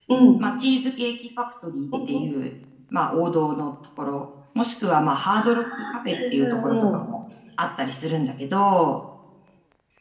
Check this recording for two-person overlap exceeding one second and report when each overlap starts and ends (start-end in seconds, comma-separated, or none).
5.3-7.0